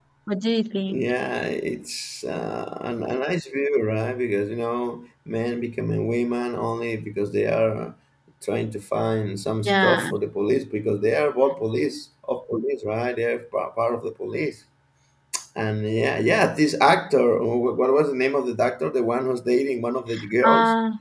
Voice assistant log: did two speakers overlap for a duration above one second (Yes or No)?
No